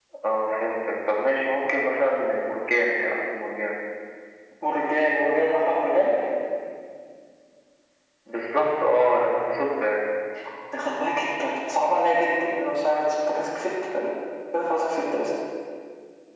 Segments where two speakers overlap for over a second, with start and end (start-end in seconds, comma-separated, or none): none